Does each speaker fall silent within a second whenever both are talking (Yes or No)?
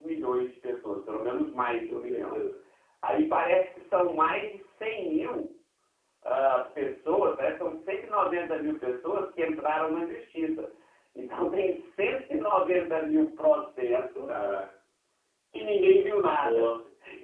Yes